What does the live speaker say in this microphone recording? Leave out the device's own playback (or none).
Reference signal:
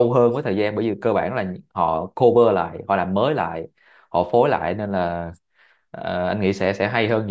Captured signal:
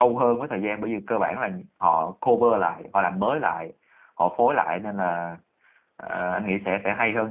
none